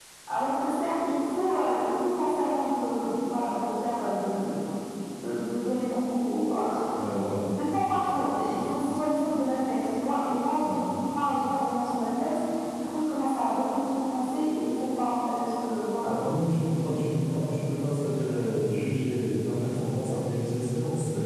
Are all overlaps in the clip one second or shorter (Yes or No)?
Yes